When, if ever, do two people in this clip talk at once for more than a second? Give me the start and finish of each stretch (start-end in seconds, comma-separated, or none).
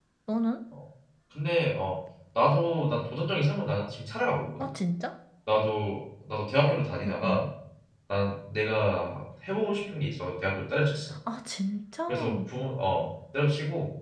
none